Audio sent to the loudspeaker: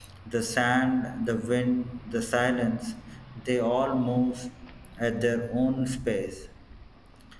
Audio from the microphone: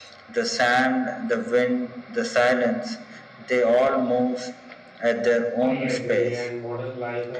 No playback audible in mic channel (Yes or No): No